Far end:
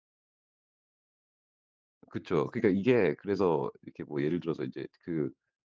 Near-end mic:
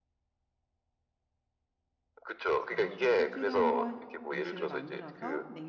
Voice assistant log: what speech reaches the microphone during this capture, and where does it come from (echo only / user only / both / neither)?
both